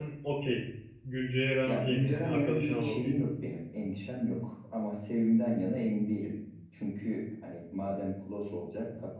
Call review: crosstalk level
present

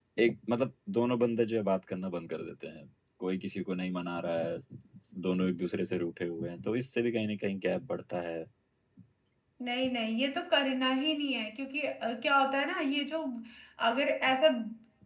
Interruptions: none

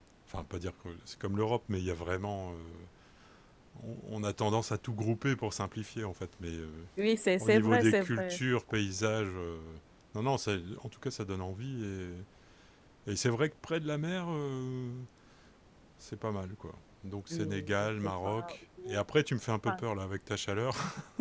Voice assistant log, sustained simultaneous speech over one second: present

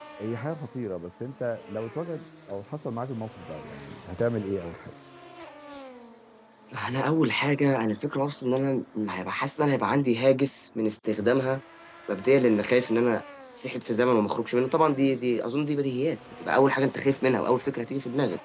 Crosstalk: none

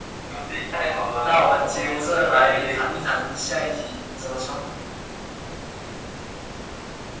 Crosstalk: present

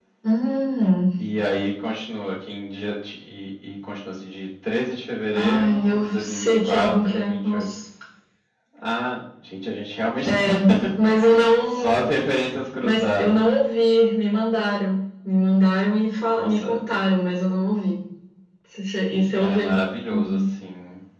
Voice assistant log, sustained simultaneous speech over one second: present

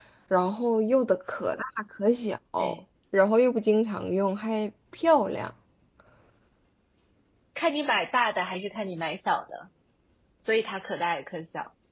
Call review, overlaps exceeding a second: none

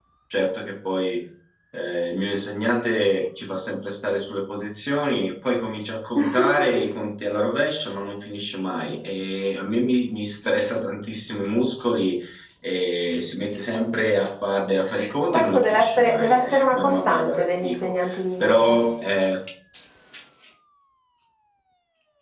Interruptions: present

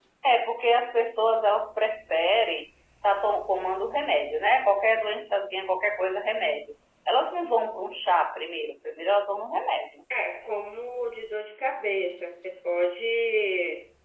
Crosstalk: none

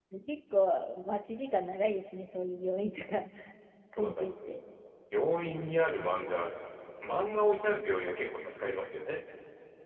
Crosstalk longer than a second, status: none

